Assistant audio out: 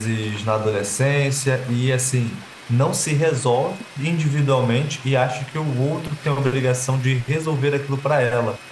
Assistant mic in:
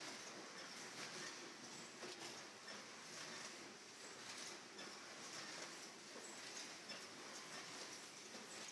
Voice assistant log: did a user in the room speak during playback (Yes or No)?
No